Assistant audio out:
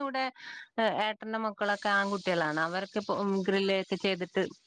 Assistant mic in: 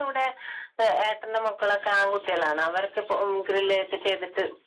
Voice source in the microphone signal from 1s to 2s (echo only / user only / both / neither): echo only